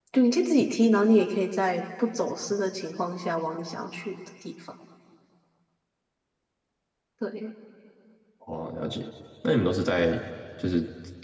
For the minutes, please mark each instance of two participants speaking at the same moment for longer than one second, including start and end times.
none

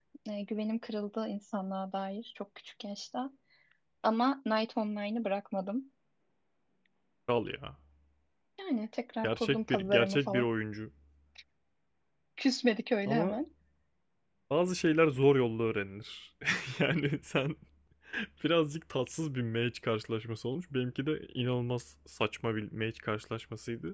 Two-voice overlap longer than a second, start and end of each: 9.2-10.5

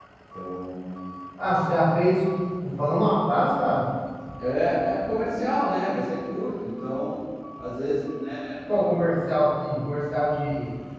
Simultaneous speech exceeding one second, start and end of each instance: none

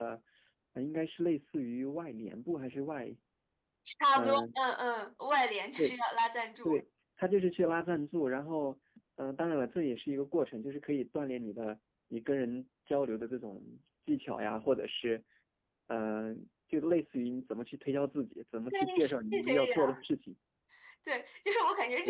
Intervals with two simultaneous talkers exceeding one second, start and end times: 18.7-20.0

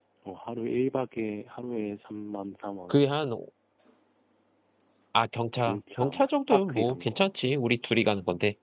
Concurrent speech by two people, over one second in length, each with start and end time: 5.6-7.2

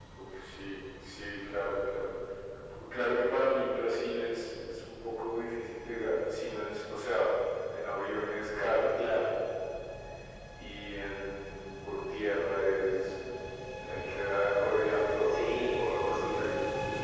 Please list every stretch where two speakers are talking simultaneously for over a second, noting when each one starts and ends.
15.3-16.6

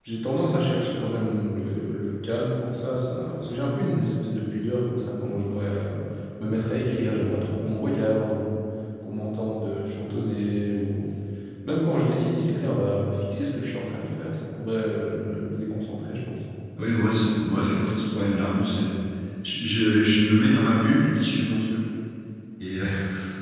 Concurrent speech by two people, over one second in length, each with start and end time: none

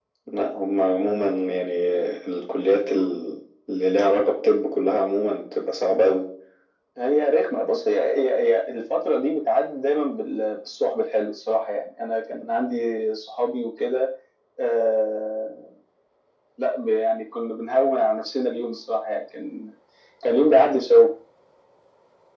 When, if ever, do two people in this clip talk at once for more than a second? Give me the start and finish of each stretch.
none

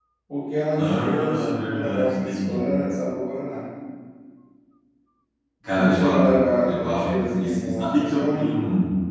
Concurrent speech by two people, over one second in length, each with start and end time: 0.8-2.7, 5.7-8.5

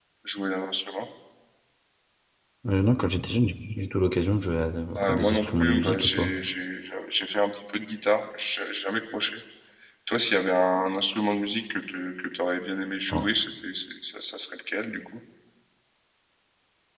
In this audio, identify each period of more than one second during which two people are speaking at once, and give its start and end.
5.1-6.3

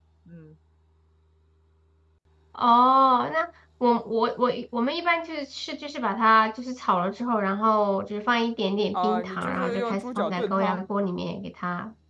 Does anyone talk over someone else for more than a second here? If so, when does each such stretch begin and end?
8.9-10.8

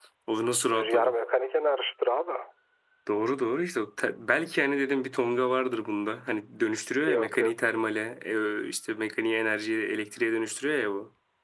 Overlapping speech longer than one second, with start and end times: none

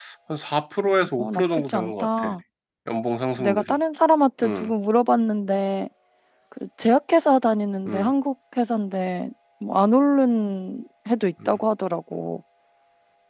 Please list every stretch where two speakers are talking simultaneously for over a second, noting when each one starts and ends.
0.8-2.3

